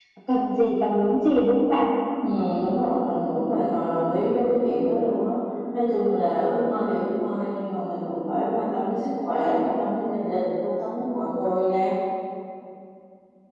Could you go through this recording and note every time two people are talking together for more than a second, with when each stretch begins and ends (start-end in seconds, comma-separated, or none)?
none